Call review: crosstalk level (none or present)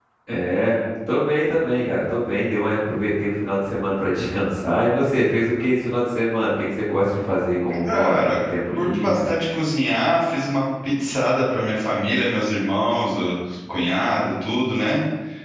present